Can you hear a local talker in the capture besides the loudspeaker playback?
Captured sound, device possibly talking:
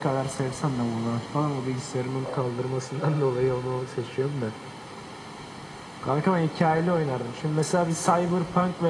No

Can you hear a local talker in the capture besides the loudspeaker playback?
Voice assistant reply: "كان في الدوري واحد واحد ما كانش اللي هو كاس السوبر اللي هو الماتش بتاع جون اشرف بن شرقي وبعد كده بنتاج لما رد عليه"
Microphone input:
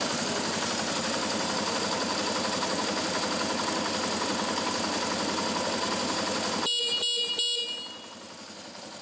No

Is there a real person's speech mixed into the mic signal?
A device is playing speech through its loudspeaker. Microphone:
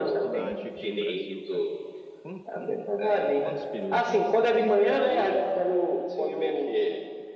Yes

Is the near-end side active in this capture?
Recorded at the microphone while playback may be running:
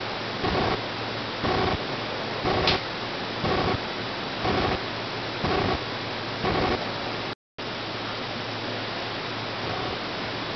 No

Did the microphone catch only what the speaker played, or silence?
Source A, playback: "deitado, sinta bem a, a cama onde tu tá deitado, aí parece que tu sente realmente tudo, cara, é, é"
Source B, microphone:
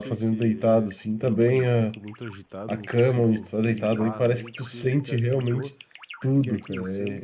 No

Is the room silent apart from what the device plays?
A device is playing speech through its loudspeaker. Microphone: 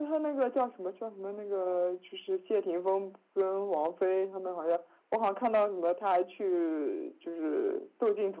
Yes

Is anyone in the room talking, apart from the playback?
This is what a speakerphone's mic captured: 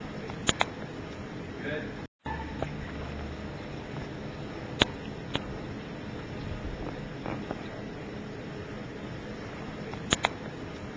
No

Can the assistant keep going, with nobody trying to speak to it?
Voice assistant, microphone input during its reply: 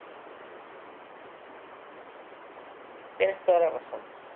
No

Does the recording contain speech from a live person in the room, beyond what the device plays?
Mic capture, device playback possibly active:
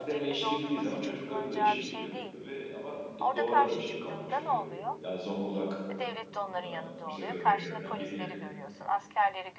Yes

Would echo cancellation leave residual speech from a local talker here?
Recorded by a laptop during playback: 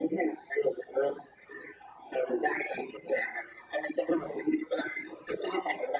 No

